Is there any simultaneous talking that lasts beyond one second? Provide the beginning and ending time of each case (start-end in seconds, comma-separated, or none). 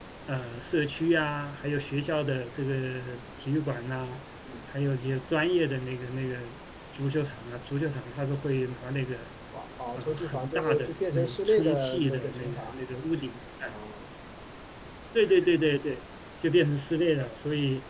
10.0-12.8